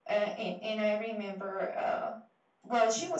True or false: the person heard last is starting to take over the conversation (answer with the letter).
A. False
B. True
A